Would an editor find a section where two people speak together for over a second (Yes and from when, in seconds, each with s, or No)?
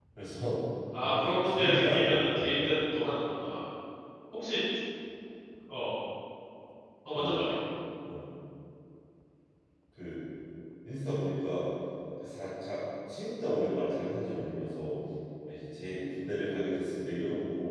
Yes, from 1.0 s